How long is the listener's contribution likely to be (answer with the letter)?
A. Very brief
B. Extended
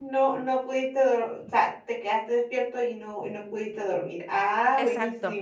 B